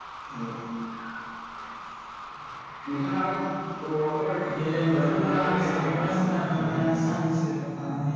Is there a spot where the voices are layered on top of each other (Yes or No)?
Yes